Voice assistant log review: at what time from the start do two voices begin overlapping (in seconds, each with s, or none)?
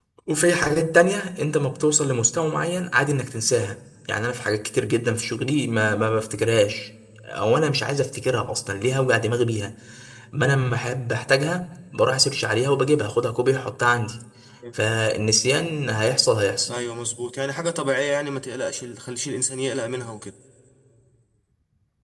none